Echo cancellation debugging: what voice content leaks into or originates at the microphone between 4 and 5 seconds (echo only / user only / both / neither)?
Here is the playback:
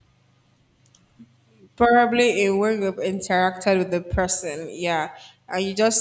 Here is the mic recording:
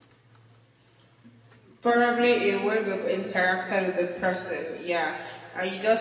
echo only